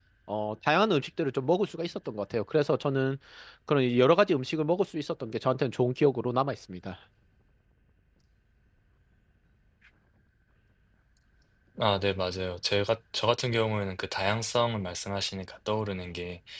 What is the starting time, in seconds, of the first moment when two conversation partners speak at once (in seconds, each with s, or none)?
none